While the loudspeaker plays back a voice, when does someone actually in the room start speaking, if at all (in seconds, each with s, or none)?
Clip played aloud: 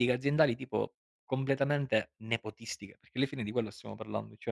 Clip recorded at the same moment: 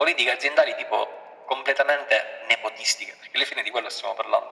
none